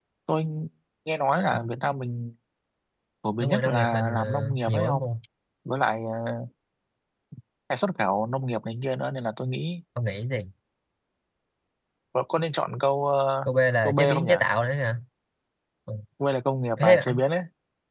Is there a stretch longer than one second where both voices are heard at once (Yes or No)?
Yes